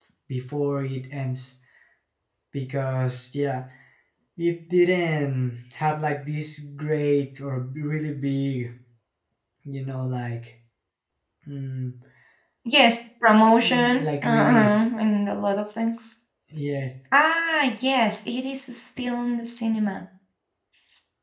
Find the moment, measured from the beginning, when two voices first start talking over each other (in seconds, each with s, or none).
13.6 s